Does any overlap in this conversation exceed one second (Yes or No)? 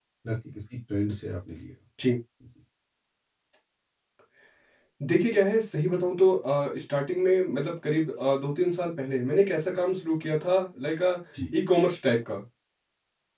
No